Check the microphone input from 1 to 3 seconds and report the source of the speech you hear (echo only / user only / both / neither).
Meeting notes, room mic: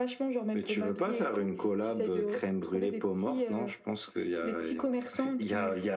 echo only